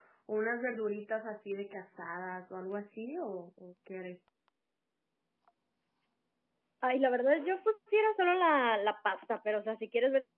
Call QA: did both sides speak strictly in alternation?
Yes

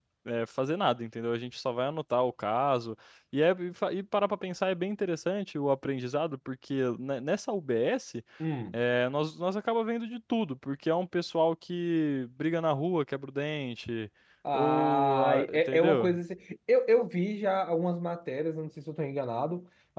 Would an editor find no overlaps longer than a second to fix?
No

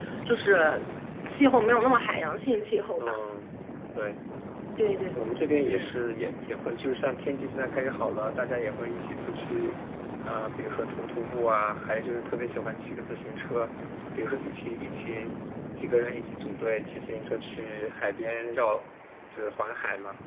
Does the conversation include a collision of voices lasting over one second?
No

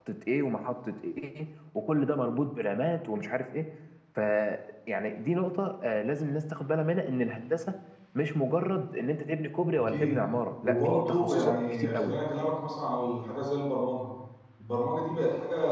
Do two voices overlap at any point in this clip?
Yes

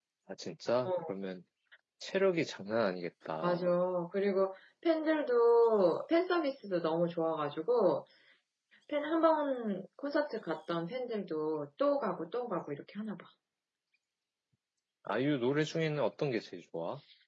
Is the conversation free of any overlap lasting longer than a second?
Yes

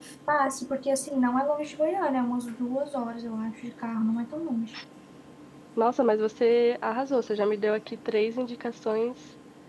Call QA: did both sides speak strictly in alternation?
Yes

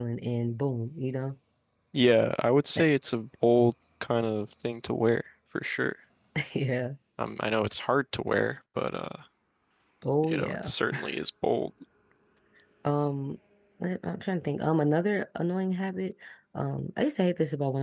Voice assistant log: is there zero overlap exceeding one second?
Yes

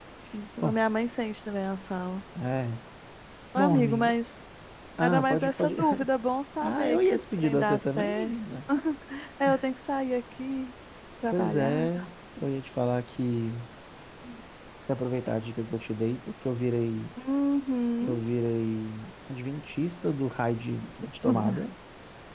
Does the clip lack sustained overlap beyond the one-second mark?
No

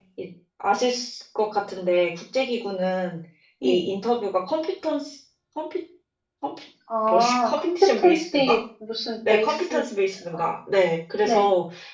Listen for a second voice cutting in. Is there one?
Yes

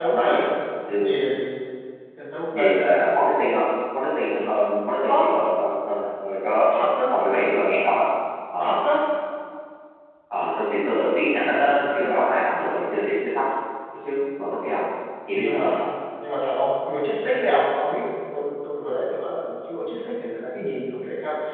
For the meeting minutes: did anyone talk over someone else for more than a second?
No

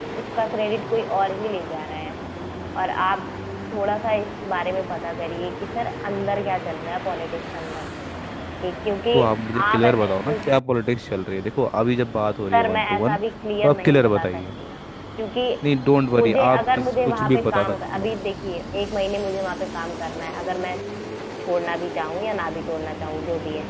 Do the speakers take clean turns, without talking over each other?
No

